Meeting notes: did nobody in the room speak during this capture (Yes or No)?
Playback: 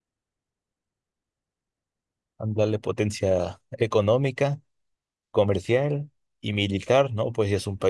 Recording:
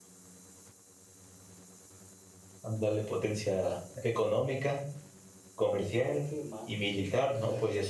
No